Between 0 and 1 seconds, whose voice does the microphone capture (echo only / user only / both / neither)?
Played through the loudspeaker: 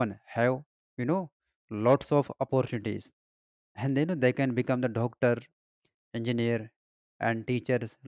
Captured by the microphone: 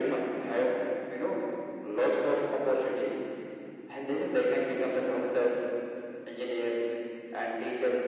echo only